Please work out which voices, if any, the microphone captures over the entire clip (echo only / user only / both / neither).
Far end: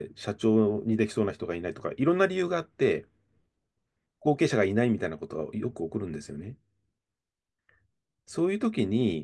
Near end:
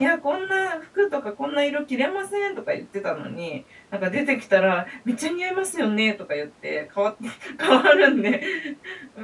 user only